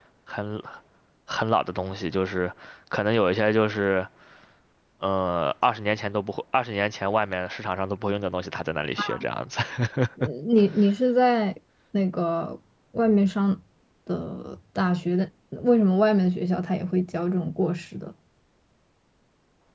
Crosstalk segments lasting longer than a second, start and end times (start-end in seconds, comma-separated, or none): none